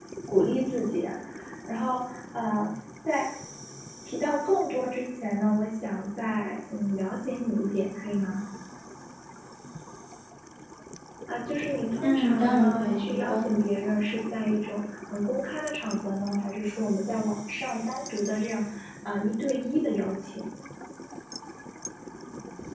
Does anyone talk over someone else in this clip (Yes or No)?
Yes